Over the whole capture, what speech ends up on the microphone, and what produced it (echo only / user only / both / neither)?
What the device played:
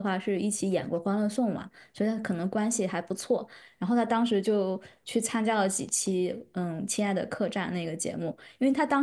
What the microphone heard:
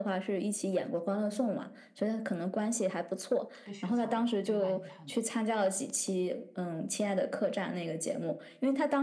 both